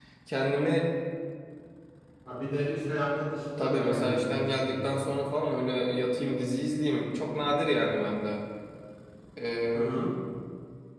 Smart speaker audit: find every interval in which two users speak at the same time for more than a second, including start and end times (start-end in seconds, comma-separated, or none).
3.6-5.1